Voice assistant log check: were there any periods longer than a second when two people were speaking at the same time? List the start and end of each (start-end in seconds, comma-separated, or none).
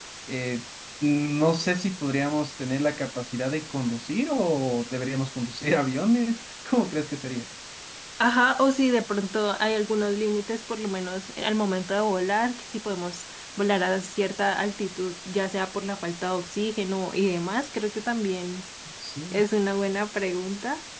none